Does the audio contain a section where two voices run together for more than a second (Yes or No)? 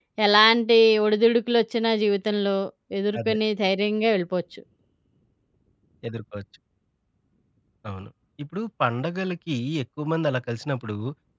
No